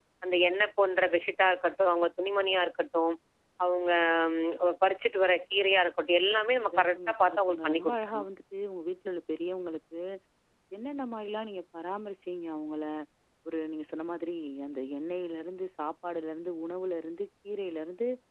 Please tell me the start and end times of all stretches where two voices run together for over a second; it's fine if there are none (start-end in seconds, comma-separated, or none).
6.7-8.2